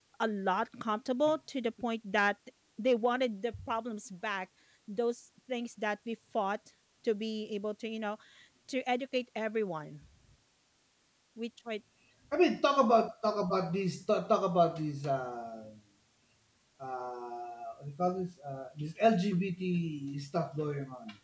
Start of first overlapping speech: none

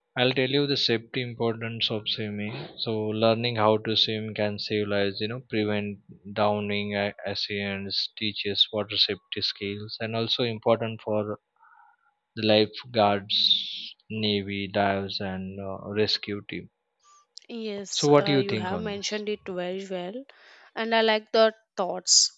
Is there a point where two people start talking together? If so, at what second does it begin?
18 s

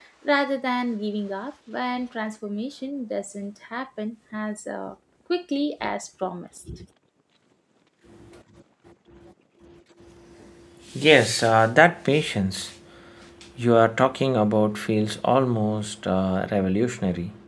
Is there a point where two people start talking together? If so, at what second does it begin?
none

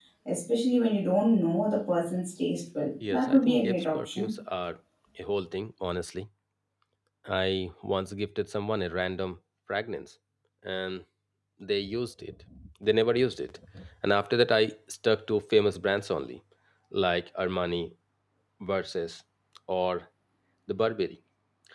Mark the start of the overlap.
3 s

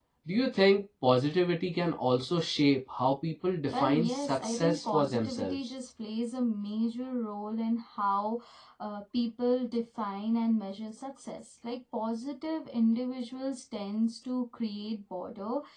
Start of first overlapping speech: 4 s

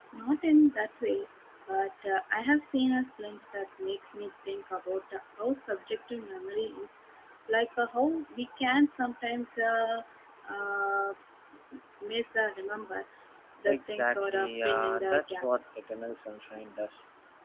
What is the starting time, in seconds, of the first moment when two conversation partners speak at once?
14 s

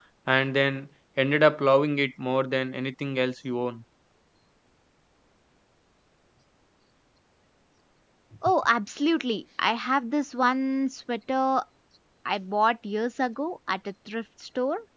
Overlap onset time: none

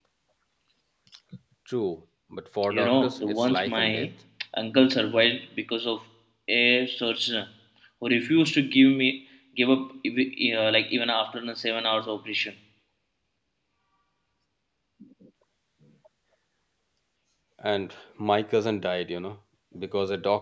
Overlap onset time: 3 s

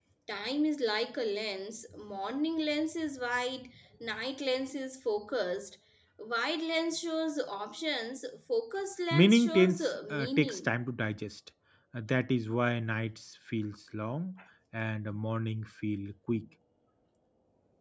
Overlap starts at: 9 s

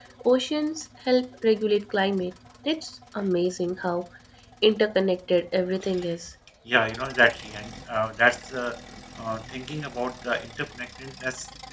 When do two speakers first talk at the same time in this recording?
none

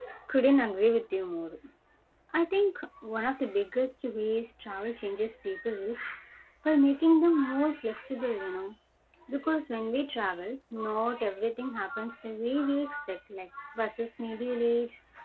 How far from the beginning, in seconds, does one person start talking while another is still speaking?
none

